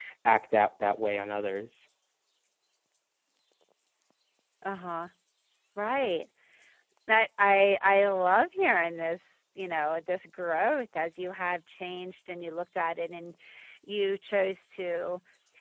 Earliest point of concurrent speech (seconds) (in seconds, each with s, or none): none